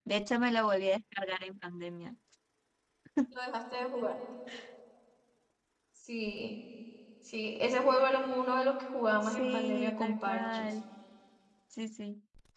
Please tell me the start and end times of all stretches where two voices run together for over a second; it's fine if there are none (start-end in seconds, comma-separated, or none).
9.2-10.7